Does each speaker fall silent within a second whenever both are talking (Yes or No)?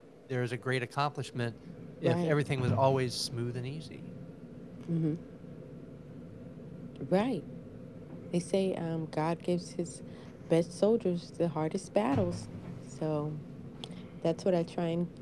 Yes